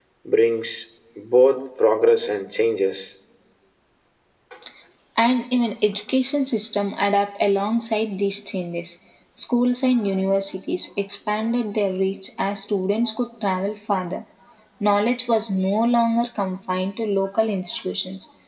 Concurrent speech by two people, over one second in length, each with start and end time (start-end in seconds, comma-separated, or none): none